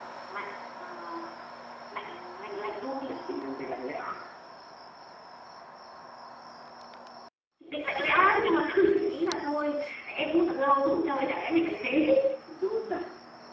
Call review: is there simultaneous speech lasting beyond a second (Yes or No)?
No